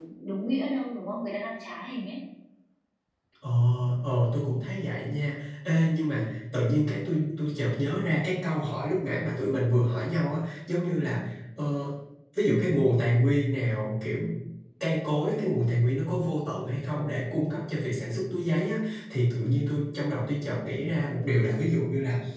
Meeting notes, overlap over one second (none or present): none